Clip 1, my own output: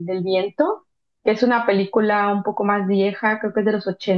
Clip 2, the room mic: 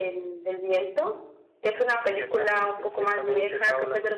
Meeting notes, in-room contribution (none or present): present